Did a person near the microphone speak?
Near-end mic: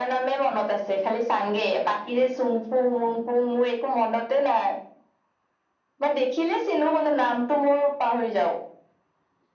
No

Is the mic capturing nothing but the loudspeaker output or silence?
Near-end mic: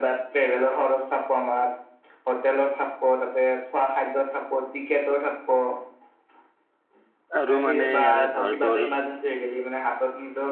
No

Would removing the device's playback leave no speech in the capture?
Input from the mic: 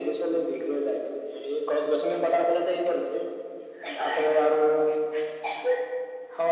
Yes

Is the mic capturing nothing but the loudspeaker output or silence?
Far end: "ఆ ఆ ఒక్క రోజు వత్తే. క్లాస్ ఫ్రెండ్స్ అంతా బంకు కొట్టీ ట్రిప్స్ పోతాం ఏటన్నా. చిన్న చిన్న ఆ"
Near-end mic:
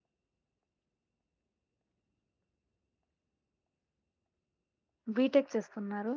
No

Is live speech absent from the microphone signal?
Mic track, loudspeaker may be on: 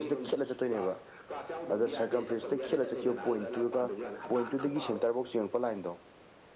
No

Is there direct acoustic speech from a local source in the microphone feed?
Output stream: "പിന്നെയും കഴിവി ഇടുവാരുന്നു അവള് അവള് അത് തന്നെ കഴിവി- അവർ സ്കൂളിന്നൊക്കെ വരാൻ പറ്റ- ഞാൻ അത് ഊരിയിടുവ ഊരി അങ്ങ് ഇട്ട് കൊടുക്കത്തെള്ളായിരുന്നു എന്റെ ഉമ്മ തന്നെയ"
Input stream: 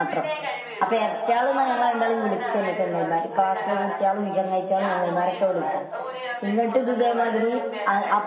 Yes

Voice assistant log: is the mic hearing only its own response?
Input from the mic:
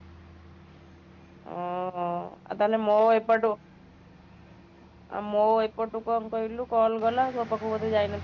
No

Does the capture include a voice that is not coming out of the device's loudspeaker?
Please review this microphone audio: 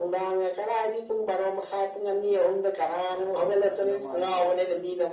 Yes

